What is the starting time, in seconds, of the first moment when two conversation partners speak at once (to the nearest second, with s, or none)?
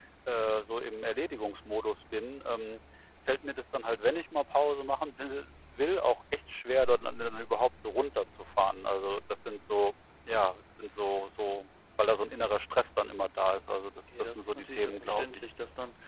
14 s